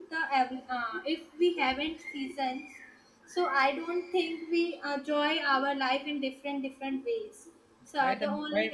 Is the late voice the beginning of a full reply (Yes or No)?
Yes